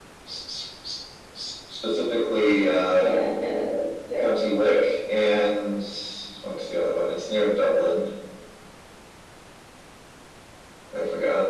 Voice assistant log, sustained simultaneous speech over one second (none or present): none